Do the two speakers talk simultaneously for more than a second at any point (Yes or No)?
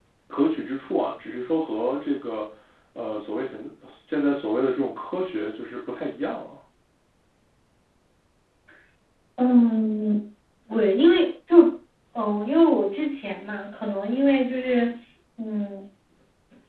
No